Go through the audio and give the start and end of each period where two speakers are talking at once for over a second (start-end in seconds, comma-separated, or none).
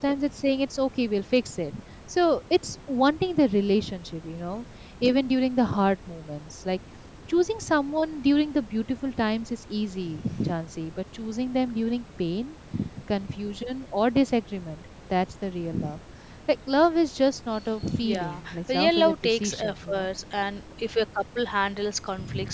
18.0-20.1